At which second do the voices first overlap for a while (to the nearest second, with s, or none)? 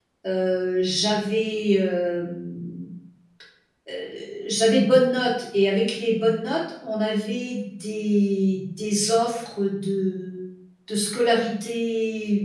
none